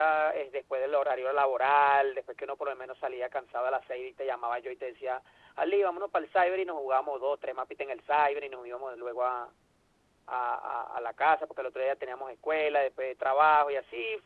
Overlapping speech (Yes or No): No